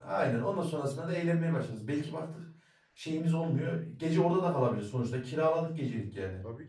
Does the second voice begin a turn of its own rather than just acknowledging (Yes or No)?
Yes